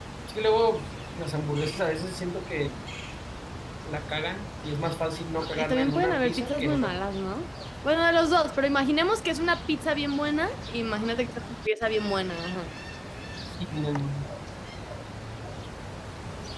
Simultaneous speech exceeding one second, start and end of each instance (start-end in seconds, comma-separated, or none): 5.5-7.0